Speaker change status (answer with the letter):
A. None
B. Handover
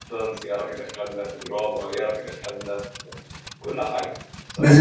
B